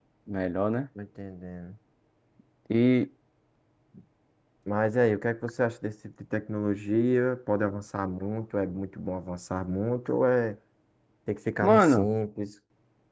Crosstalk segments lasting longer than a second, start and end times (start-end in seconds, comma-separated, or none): none